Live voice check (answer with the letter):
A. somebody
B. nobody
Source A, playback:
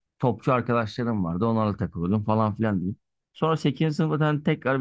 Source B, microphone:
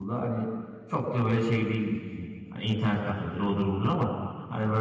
A